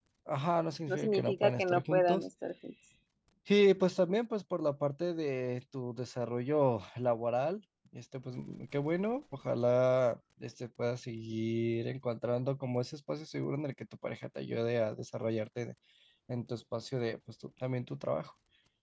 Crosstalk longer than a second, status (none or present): present